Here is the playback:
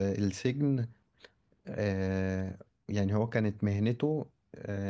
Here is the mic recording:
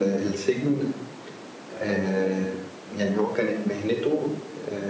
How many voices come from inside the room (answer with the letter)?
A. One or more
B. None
B